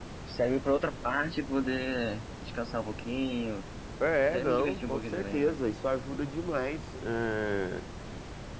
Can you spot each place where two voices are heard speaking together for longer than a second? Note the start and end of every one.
4.3-5.6

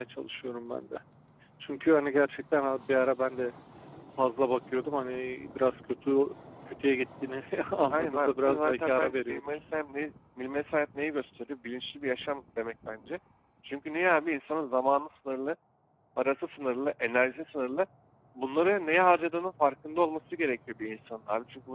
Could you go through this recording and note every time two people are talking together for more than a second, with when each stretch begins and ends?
7.9-9.5

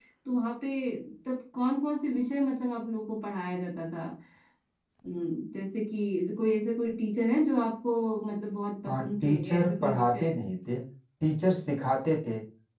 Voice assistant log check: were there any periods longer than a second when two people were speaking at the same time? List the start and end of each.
8.9-10.4

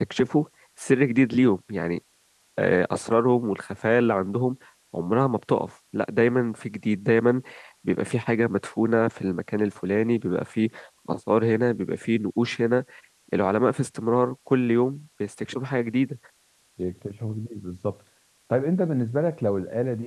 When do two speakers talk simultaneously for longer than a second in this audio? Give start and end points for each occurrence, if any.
none

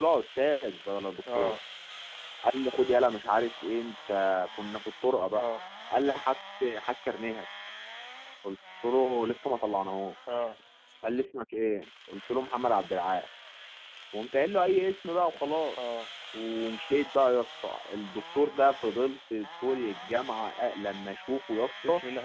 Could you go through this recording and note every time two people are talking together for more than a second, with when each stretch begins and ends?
none

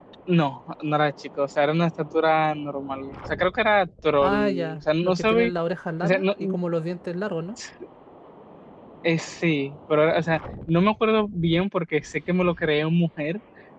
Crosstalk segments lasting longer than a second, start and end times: 4.2-5.5

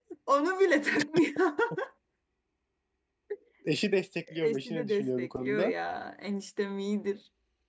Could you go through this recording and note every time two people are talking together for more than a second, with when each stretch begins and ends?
4.4-5.7

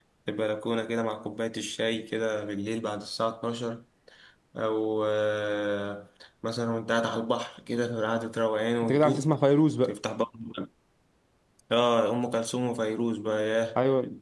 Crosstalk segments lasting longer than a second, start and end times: none

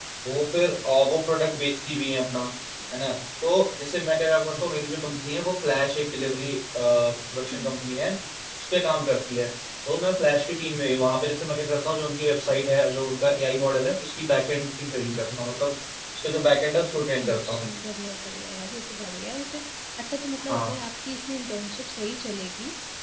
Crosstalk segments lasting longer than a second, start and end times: none

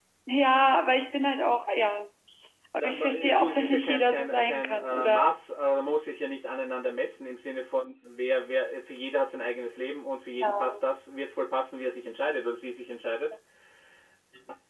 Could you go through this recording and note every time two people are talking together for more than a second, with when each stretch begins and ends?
2.8-5.3

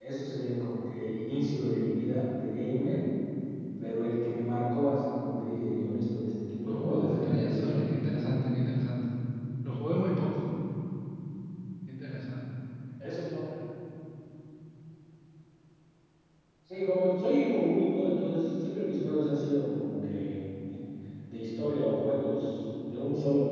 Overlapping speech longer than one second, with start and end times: 6.7-8.4

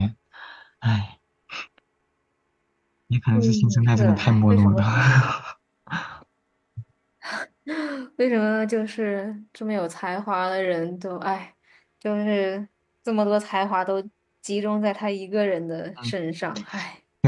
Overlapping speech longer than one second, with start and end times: 3.3-4.8

